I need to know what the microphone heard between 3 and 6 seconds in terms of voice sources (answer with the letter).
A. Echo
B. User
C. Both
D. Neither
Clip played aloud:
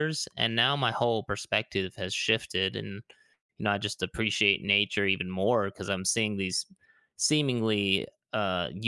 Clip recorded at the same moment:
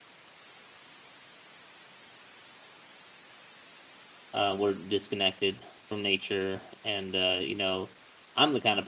B